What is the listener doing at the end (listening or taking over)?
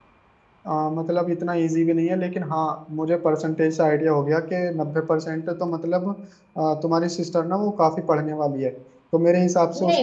taking over